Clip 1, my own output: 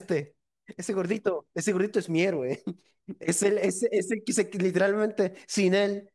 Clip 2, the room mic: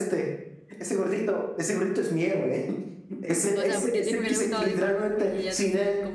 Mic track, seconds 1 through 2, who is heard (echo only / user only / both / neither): echo only